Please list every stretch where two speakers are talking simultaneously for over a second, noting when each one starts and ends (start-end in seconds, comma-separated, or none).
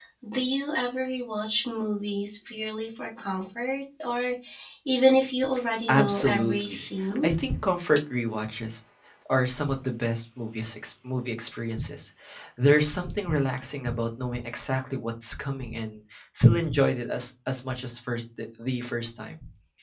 5.9-7.3